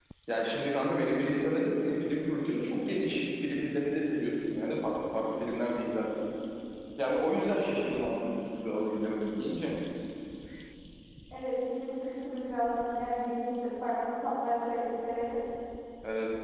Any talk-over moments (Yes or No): No